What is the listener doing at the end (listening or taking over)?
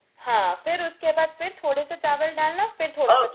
taking over